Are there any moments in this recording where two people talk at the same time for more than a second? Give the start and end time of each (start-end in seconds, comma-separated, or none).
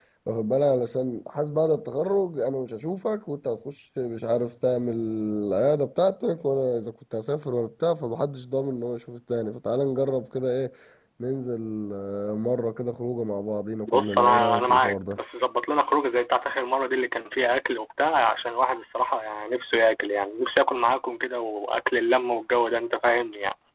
13.9-15.2